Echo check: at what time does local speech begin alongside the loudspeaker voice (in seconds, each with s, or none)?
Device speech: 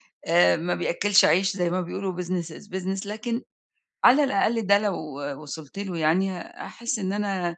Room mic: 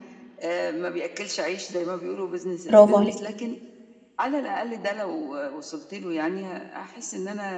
2.7 s